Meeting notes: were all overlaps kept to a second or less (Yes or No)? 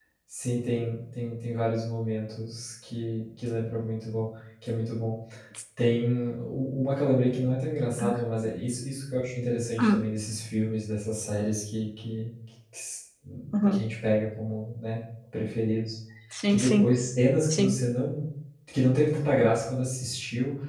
Yes